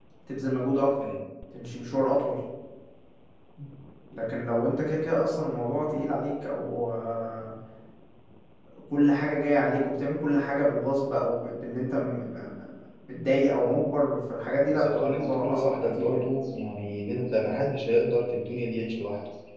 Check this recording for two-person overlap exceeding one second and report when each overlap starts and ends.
14.7-16.2

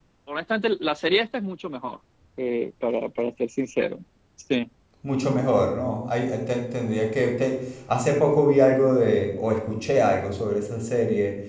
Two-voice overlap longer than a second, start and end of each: none

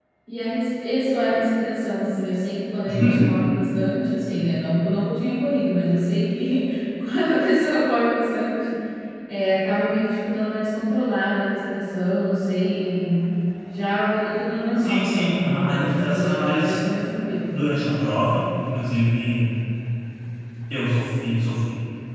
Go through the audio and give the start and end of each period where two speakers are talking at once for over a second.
14.8-16.8

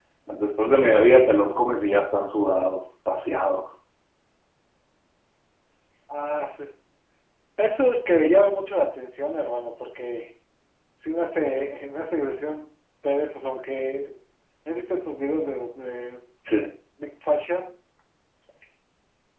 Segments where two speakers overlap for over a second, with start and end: none

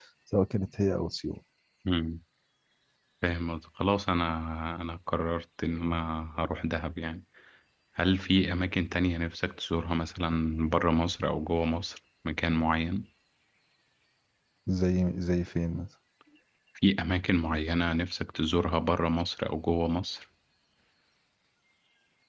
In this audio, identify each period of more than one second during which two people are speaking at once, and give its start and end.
none

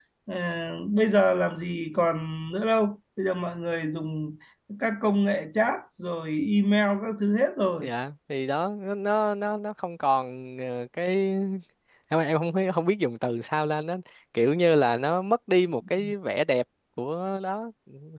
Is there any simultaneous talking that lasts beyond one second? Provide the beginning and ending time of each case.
none

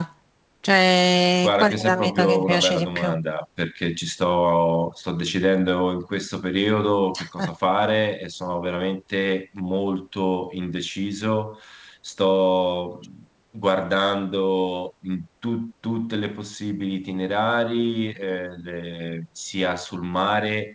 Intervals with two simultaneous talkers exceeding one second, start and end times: 1.4-3.1

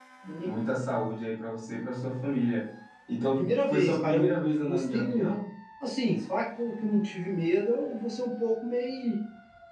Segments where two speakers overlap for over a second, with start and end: 3.4-5.3

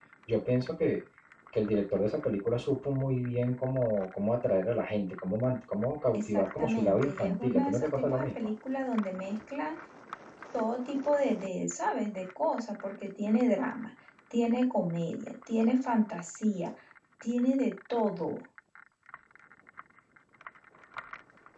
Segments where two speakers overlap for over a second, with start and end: 6.1-8.2

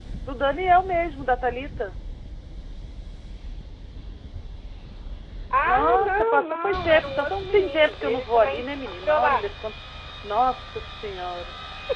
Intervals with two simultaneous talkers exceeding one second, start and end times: 5.6-9.5

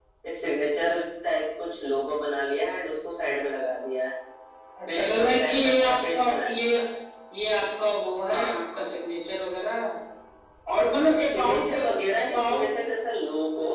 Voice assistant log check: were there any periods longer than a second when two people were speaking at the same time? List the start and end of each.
4.9-6.6, 11.3-12.7

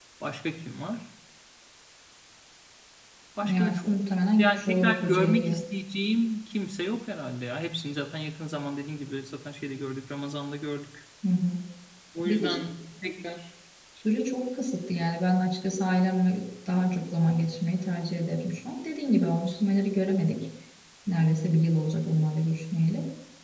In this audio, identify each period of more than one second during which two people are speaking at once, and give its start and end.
4.4-5.6

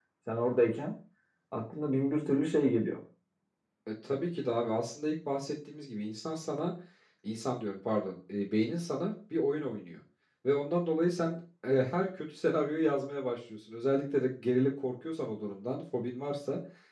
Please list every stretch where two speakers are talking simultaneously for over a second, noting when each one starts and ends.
none

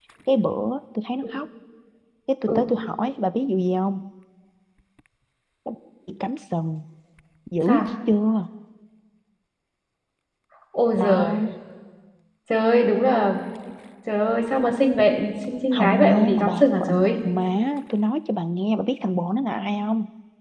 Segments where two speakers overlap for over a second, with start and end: 15.7-17.0

